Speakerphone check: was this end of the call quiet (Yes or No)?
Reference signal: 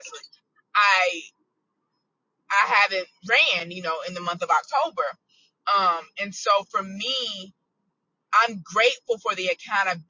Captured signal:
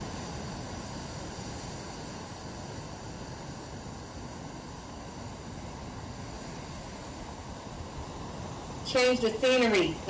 No